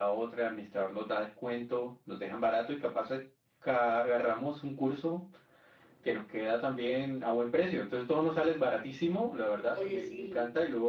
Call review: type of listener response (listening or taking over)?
listening